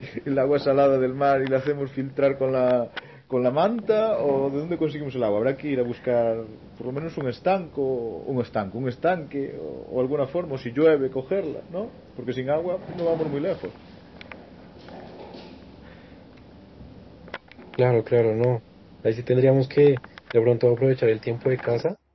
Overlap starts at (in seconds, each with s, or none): none